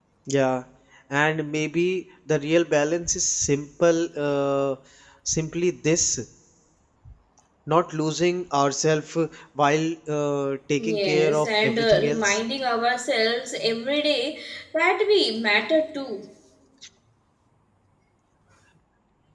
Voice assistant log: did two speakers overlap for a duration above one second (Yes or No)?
Yes